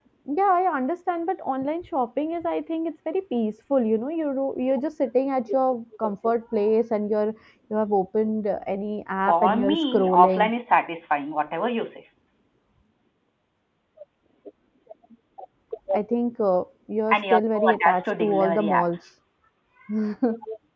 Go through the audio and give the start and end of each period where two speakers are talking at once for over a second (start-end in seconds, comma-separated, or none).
9.3-10.5, 17.1-19.0